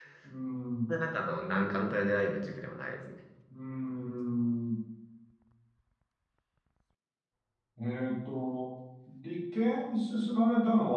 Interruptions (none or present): none